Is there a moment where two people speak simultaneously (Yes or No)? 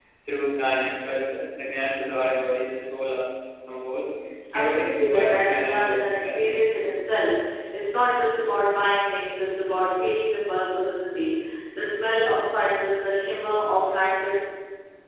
Yes